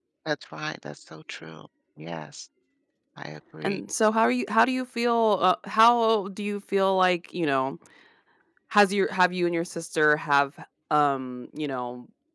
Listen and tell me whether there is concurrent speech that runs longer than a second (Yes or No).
No